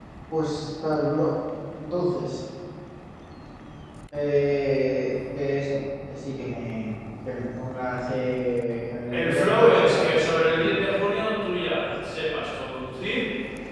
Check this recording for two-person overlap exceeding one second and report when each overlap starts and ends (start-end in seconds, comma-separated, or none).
9.1-10.9